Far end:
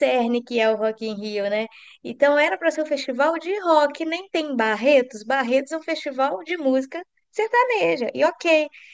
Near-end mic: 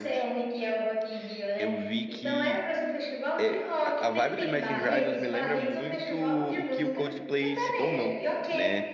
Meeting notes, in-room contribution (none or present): present